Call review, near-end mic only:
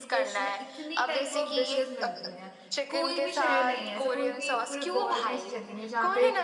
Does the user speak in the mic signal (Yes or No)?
Yes